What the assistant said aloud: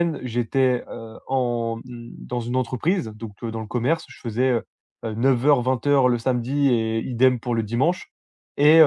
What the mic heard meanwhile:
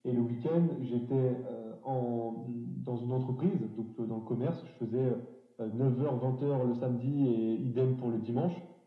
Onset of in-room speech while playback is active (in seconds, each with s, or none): none